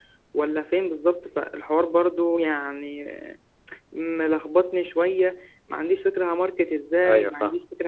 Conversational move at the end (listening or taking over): listening